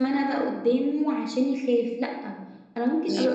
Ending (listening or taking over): listening